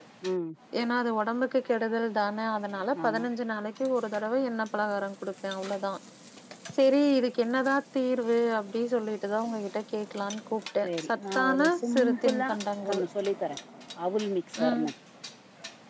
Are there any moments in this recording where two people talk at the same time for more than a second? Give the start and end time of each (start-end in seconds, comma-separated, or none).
10.8-12.5